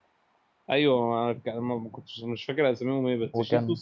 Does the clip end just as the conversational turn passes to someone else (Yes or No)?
No